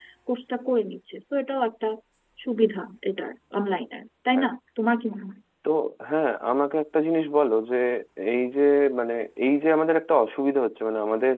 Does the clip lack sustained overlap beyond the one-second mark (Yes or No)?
Yes